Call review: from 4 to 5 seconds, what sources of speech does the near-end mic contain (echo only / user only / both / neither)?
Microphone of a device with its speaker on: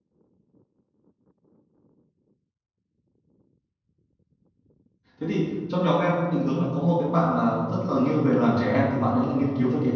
neither